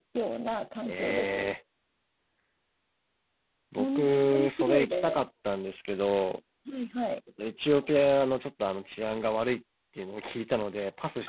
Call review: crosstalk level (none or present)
present